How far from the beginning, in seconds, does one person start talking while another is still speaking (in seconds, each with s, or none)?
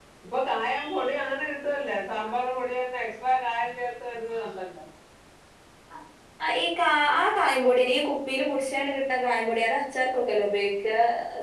none